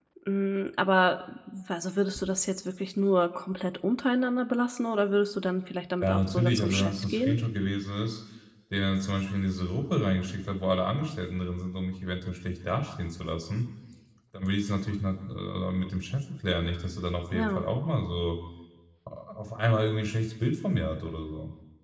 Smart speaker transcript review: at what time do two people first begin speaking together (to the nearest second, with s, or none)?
6 s